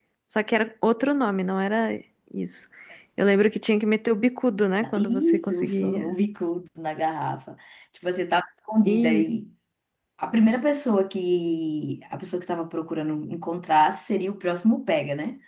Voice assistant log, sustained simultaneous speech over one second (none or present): present